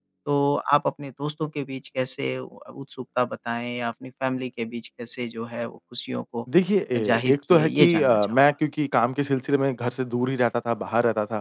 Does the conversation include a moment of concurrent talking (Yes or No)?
Yes